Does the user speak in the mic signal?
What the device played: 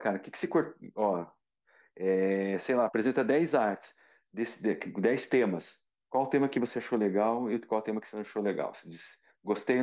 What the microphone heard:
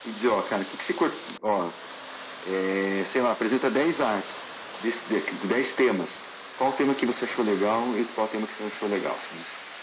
No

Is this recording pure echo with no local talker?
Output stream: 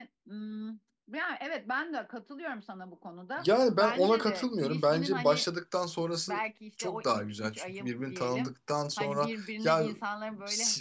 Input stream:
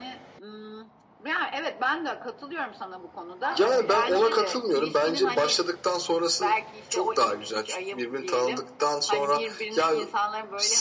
No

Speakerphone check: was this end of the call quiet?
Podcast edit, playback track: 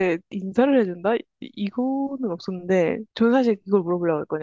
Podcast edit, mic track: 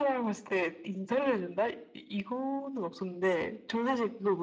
Yes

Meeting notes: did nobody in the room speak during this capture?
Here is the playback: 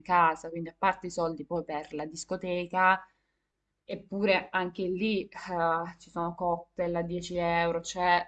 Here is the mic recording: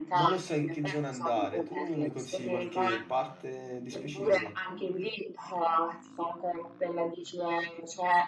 No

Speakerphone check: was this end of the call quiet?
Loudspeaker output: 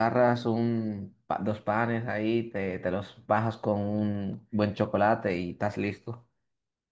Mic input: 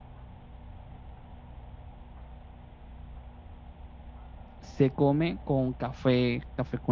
No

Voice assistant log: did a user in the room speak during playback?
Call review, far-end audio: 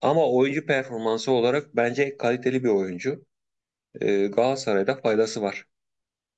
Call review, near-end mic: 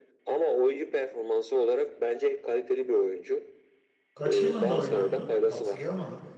Yes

